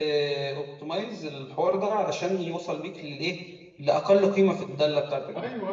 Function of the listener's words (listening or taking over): listening